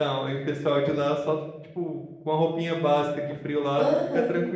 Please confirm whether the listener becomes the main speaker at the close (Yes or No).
Yes